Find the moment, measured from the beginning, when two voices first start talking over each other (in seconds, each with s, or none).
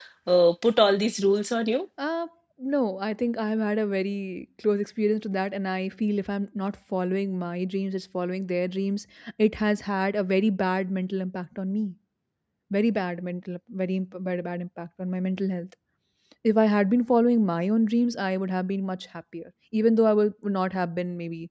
none